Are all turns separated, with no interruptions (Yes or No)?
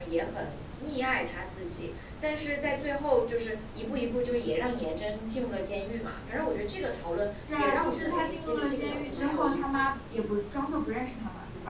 No